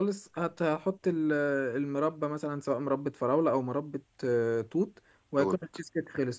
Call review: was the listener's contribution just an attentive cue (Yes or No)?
Yes